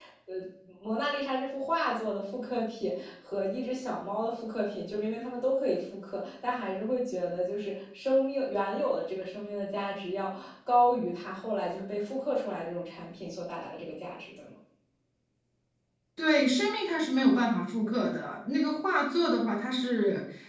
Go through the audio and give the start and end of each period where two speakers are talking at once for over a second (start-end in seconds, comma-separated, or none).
none